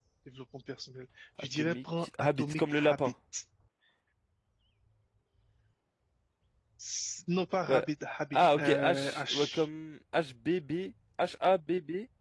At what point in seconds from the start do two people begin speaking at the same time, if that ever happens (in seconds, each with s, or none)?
1.6 s